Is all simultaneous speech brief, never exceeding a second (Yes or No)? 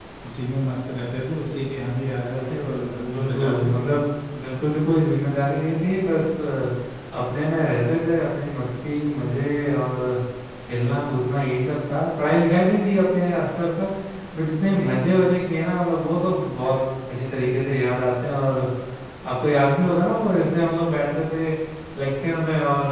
No